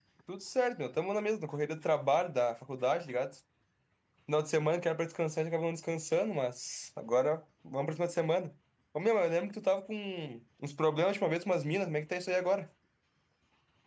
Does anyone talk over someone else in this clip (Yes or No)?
No